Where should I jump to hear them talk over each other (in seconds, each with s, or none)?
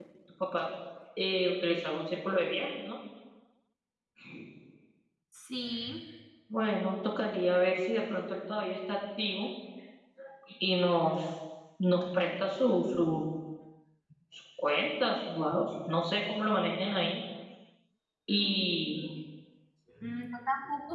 none